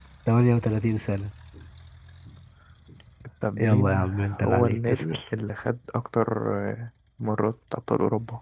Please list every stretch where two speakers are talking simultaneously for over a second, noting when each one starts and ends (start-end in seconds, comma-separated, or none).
3.6-5.2